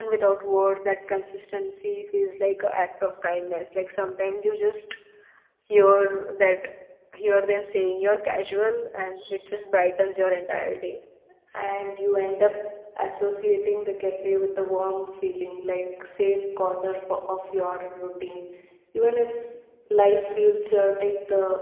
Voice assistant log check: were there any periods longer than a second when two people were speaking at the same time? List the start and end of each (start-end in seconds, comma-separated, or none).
none